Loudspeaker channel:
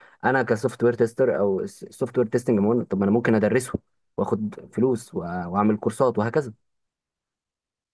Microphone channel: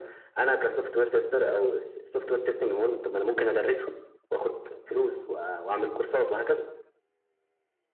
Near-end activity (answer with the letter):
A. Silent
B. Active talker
A